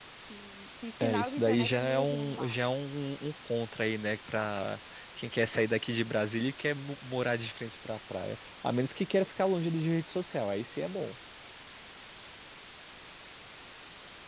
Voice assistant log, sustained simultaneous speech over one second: present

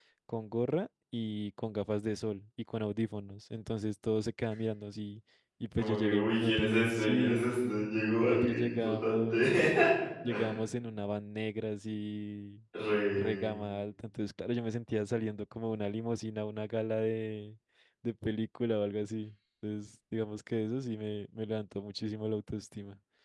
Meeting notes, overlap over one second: present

